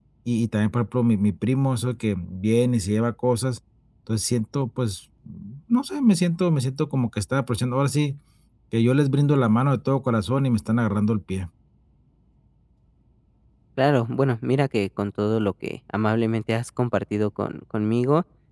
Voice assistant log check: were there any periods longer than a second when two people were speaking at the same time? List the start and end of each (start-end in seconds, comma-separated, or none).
none